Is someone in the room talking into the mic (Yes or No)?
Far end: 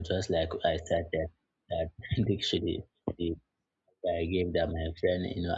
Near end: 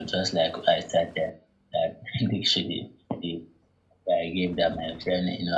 No